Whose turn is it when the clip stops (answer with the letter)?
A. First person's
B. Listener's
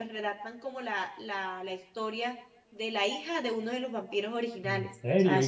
B